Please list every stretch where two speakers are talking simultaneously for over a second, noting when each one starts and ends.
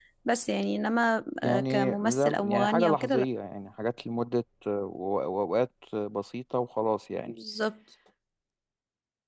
1.4-3.3

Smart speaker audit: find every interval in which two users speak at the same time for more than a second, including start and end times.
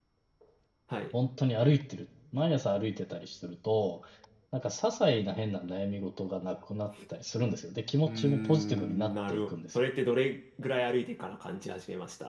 8.1-9.8

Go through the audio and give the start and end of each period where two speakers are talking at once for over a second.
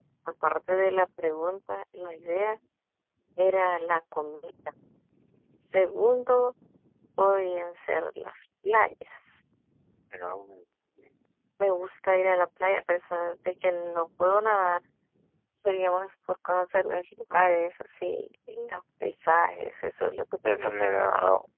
none

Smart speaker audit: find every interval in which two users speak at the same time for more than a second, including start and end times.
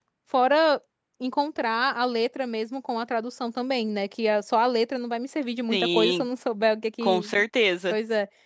none

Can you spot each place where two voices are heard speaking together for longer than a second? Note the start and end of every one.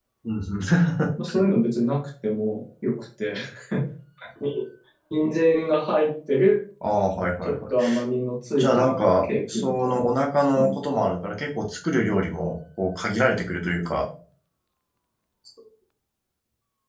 8.6-10.0

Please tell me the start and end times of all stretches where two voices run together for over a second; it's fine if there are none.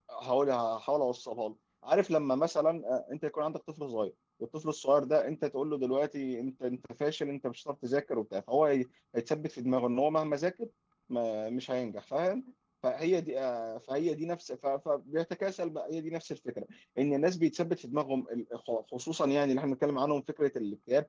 none

